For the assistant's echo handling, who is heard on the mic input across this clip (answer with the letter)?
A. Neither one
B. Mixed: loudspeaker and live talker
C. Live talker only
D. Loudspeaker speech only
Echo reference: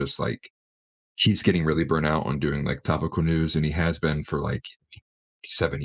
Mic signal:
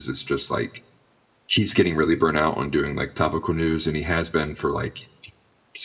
D